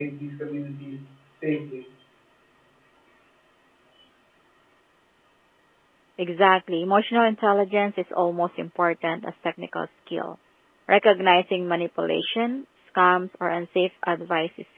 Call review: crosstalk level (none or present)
none